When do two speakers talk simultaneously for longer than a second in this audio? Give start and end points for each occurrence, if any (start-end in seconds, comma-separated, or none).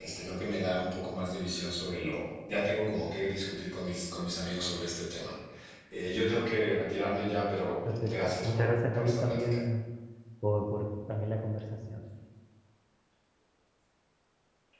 8.1-9.6